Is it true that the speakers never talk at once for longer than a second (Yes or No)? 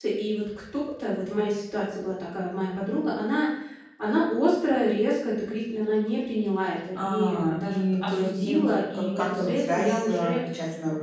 No